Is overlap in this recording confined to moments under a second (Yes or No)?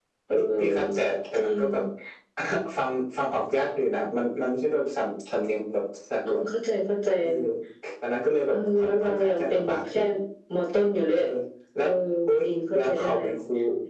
No